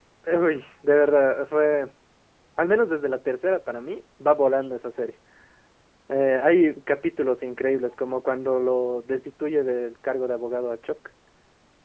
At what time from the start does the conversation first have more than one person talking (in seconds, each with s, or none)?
none